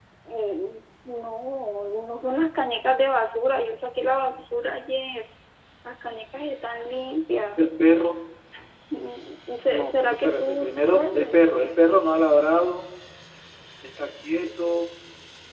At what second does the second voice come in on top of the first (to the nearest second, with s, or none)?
10 s